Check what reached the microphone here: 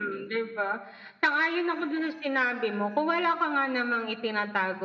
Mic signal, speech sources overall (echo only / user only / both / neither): echo only